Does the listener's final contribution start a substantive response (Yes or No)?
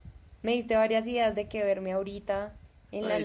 Yes